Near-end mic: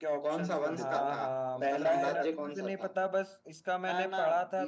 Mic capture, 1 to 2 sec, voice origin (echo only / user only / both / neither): both